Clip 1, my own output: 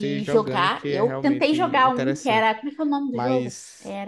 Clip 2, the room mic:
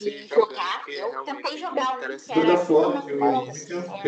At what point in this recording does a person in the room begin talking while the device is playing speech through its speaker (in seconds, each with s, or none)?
2.3 s